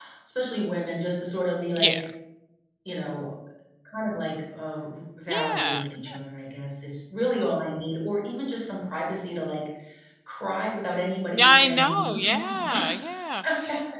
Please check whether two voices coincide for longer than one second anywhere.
Yes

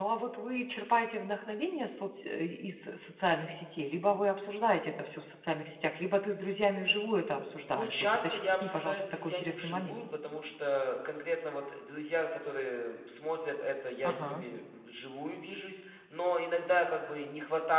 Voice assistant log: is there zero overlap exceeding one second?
No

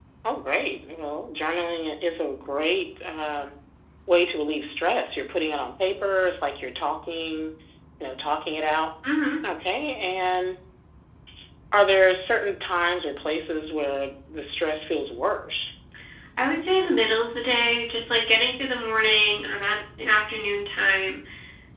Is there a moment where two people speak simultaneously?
No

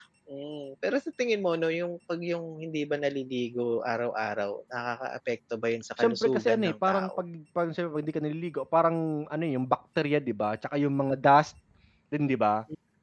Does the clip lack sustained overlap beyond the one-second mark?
No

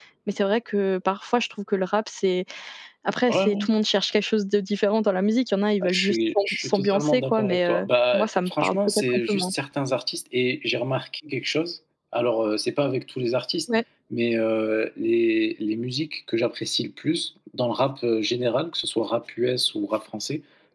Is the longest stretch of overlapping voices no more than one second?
No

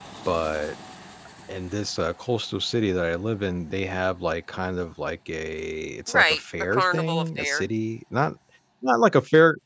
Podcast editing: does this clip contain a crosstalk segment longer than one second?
Yes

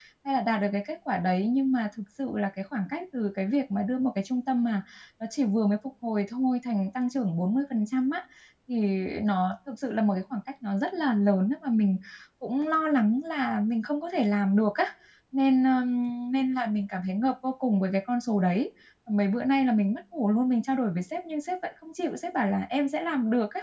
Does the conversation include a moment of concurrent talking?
No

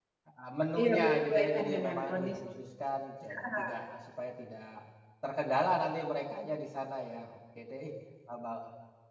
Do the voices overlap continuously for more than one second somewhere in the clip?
Yes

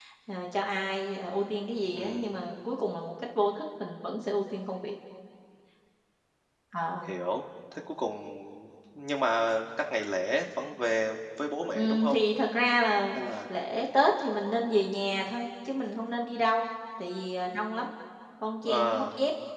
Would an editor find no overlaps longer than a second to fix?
Yes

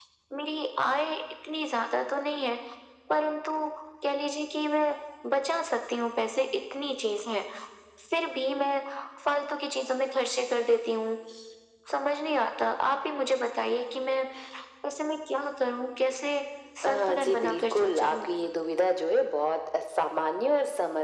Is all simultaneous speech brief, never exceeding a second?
No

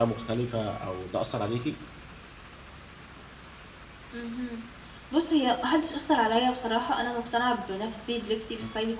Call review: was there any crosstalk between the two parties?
No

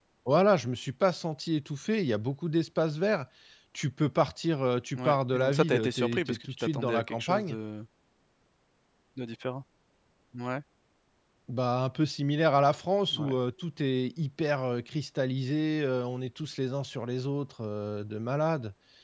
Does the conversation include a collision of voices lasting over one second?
Yes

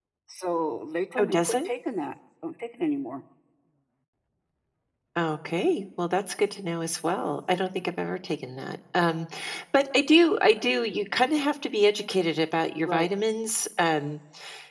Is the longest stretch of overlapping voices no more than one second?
Yes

